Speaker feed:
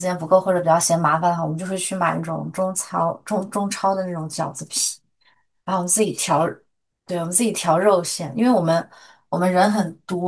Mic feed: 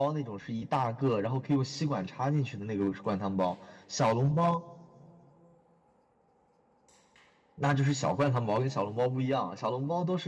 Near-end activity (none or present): present